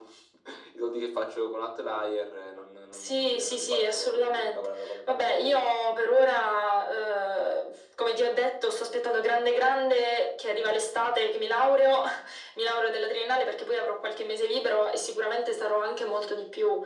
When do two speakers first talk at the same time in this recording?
3 s

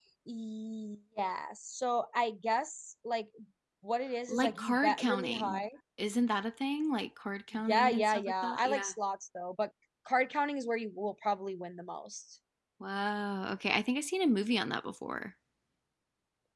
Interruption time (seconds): 4 s

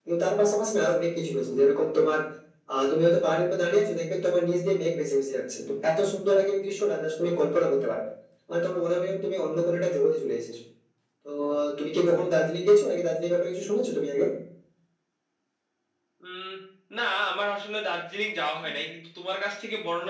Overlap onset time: none

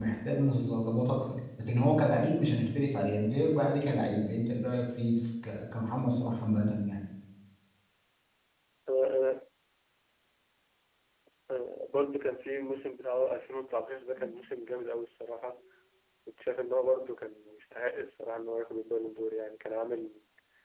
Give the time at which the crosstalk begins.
none

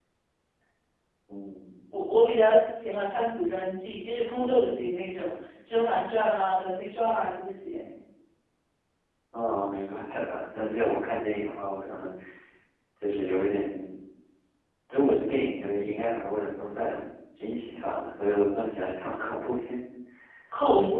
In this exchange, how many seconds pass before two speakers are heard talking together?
none

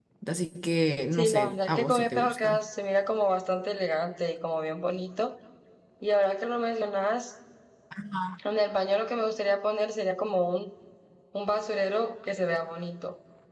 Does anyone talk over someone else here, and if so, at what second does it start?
1 s

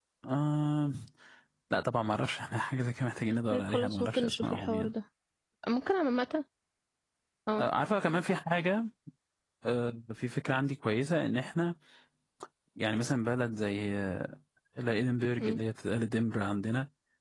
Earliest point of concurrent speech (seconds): 4 s

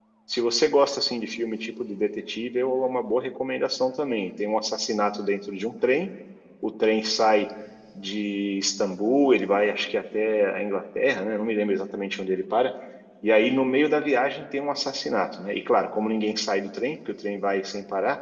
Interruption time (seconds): none

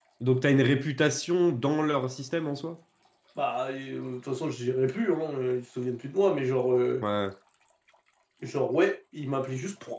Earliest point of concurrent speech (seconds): none

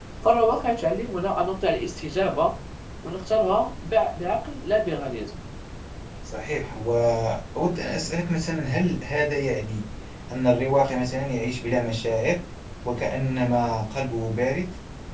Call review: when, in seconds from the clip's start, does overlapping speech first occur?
none

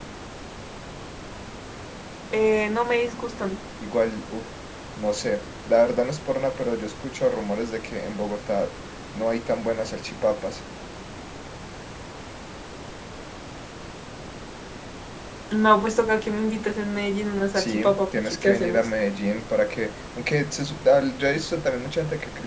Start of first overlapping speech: 18 s

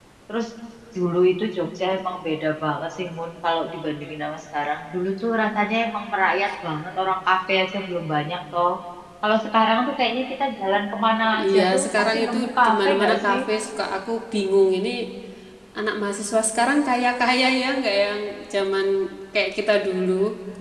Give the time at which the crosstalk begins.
11 s

